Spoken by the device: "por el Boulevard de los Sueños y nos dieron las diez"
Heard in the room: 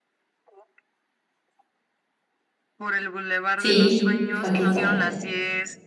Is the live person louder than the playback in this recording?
Yes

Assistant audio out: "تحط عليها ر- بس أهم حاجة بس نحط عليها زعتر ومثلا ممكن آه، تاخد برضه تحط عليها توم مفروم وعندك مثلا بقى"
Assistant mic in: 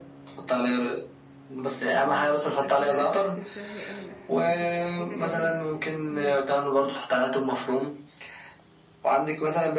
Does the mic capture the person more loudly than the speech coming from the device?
No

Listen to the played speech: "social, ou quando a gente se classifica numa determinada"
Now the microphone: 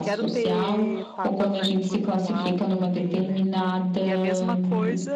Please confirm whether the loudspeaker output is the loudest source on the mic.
Yes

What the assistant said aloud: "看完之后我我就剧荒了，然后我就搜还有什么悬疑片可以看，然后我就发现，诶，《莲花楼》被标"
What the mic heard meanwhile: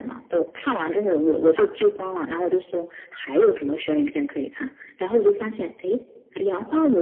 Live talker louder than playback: No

